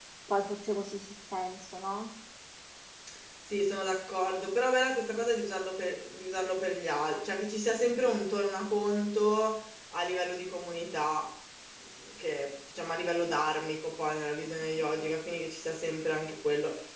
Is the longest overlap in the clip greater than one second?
No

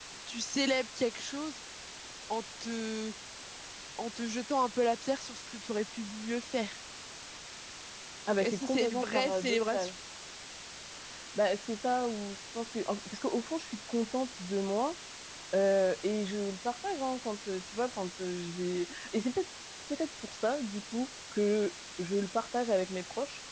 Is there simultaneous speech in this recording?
Yes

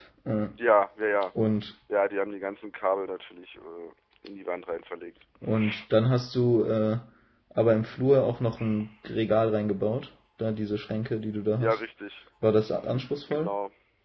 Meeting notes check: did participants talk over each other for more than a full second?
No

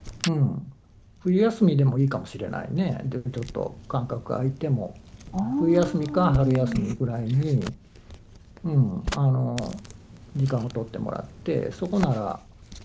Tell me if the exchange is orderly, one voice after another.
No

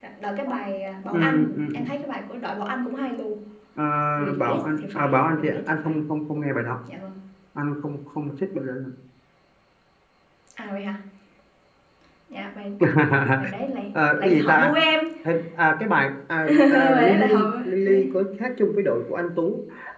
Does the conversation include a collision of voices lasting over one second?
Yes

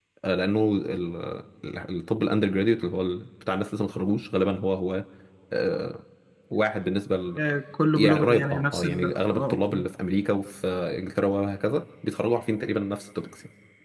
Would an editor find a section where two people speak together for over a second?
Yes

